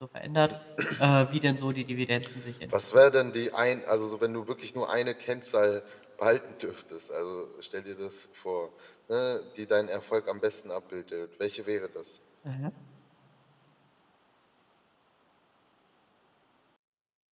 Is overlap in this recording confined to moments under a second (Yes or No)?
Yes